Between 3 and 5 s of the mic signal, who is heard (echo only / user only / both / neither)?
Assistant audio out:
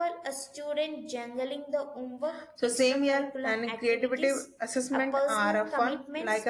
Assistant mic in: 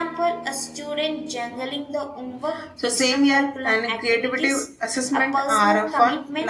echo only